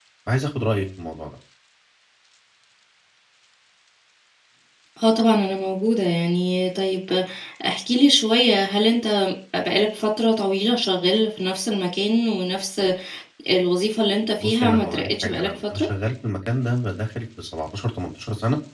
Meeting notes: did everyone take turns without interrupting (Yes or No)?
No